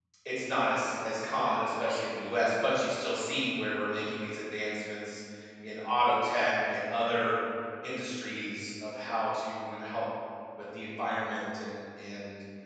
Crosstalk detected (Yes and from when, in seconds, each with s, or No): No